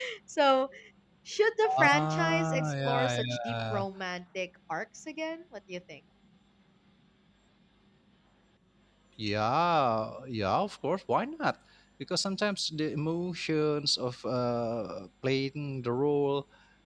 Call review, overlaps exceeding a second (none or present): present